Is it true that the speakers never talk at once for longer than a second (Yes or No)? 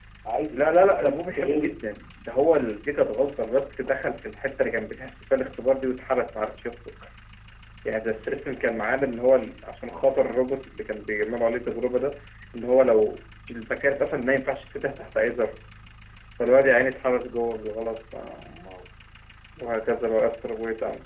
No